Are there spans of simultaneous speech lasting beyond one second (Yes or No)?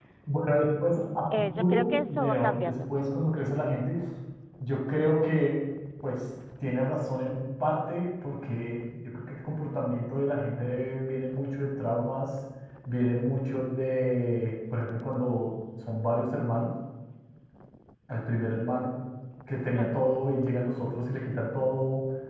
Yes